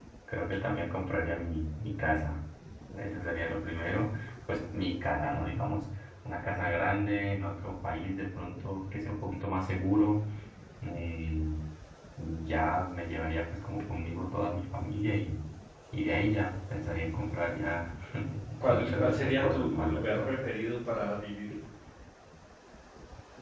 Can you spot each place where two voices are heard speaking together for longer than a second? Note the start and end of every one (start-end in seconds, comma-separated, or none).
18.7-20.3